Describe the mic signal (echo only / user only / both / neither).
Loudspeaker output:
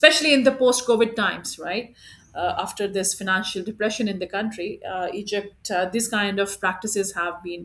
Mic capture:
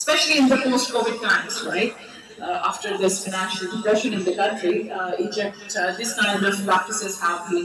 echo only